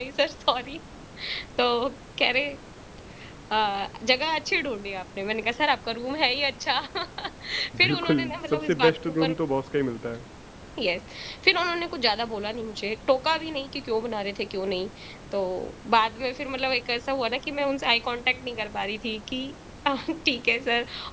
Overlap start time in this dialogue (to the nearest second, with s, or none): 8 s